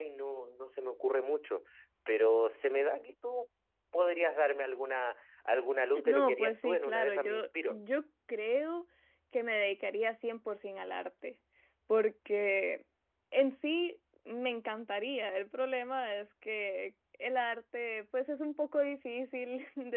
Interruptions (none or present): present